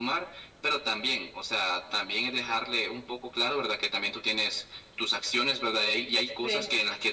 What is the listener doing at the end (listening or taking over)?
listening